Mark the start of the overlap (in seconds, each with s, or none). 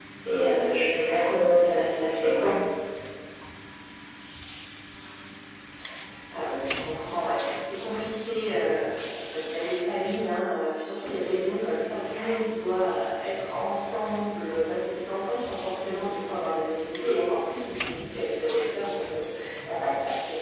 none